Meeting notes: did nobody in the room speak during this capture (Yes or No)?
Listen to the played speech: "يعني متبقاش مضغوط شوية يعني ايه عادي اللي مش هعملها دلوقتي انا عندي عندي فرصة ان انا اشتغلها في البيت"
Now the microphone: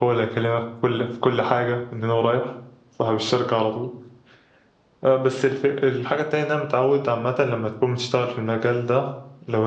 No